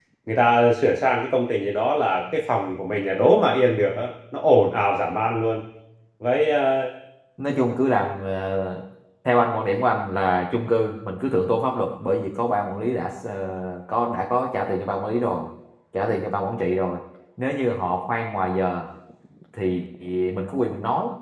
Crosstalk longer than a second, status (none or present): none